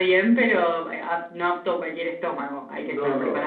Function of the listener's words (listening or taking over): taking over